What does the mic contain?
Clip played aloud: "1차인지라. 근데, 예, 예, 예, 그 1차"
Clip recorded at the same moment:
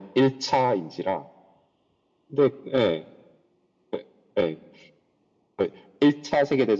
echo only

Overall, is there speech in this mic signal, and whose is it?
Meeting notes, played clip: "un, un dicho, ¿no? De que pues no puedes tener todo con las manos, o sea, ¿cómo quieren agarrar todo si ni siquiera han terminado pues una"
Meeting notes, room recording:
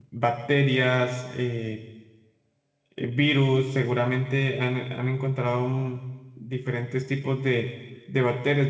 user only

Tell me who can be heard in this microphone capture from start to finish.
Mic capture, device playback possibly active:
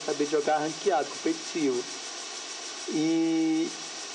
echo only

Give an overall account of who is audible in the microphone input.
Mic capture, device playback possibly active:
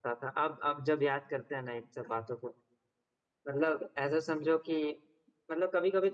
user only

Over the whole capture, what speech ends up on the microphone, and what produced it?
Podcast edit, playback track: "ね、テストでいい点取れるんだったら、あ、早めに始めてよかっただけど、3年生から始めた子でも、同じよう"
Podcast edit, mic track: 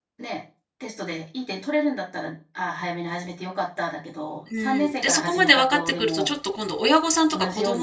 both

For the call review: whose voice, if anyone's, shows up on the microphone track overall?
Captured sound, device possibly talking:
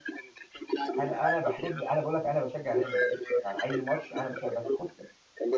both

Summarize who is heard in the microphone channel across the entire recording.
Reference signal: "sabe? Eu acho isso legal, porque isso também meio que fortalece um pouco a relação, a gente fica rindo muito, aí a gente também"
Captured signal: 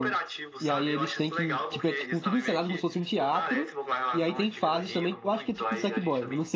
both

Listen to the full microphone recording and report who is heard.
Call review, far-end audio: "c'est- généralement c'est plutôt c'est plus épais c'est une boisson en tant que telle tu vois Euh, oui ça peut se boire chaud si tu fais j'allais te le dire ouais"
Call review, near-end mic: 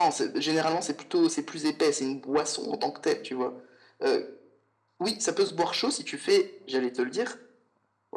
echo only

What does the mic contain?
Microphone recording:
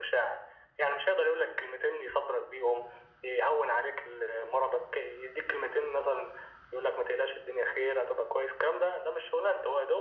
echo only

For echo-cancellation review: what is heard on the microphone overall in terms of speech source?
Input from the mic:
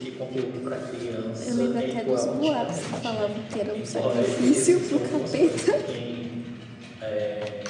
both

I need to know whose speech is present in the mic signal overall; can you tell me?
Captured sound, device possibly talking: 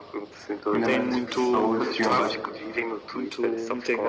both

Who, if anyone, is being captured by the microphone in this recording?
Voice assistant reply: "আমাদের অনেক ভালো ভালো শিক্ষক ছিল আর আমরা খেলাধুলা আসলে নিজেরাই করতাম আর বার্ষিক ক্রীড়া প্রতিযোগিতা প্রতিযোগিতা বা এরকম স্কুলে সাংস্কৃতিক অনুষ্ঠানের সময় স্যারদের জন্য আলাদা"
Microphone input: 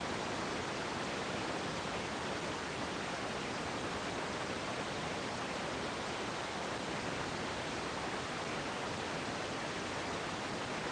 neither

